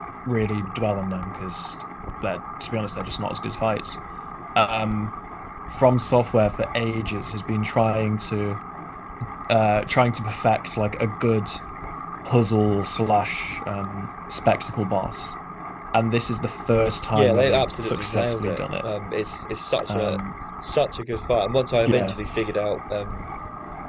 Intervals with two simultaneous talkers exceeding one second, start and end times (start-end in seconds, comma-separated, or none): 17.1-18.6